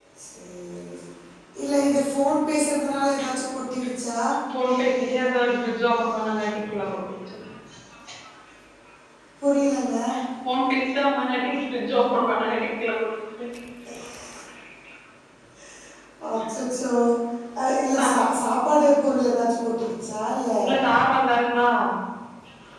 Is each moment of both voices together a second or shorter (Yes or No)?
Yes